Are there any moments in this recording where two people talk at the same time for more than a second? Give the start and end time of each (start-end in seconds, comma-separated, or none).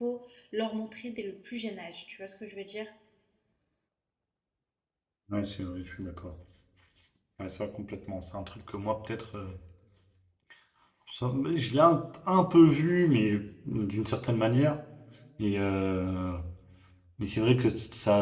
none